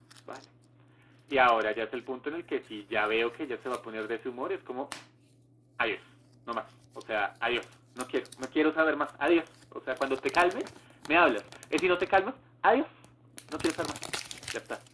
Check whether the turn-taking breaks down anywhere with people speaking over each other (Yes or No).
No